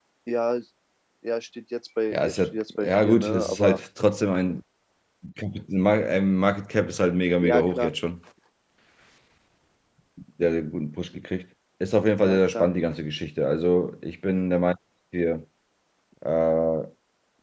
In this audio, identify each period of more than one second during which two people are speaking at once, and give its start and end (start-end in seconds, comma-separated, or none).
2.1-3.8